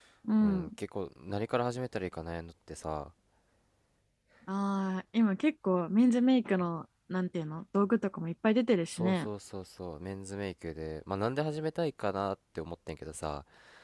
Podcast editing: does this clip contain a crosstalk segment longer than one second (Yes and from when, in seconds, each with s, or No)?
No